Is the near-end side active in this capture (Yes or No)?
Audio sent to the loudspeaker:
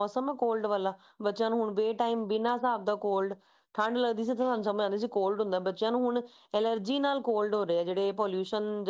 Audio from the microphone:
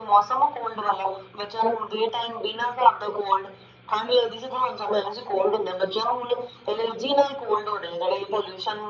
No